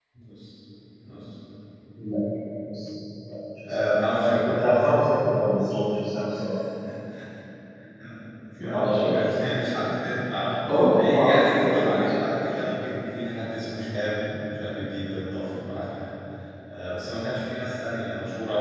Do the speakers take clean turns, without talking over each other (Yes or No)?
No